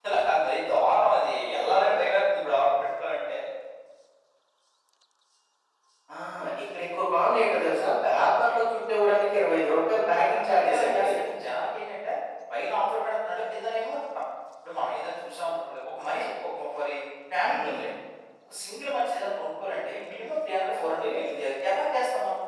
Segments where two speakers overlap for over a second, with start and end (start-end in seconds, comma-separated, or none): 9.7-11.1